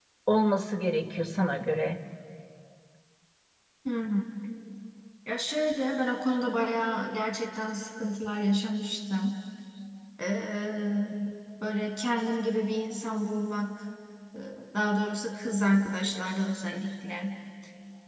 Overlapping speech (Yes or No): No